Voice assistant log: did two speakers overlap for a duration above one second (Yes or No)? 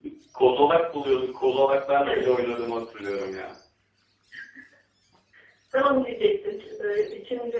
No